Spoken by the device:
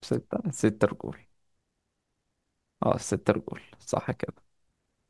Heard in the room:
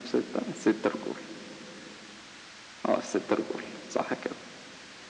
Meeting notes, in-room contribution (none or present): none